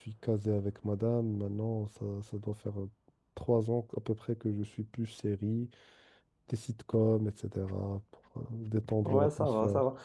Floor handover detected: Yes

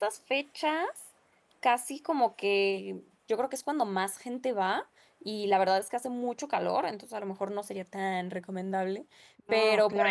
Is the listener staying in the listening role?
Yes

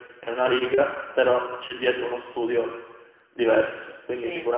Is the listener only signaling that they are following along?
No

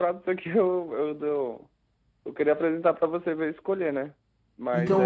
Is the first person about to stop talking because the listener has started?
Yes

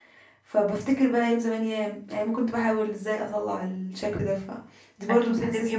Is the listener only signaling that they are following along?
No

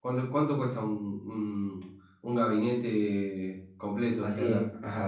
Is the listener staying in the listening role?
No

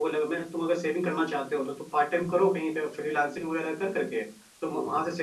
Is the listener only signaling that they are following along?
Yes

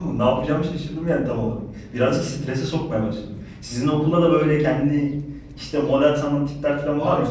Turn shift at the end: Yes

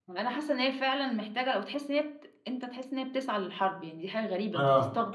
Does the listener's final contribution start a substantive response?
Yes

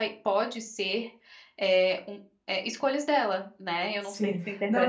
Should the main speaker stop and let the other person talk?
Yes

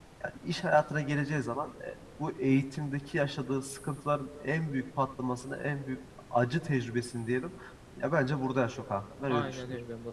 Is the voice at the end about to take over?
Yes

